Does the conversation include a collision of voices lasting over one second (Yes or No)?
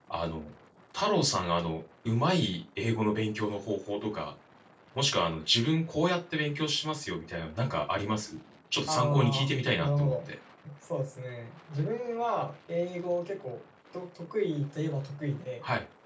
Yes